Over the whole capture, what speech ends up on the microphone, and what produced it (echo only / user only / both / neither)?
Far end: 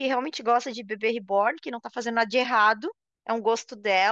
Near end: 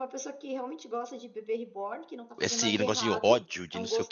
both